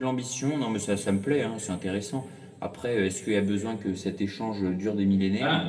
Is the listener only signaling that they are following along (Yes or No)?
No